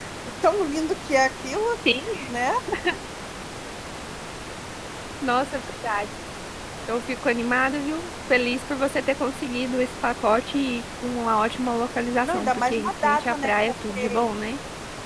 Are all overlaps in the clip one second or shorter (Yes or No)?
No